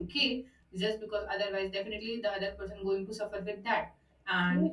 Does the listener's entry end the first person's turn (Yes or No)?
No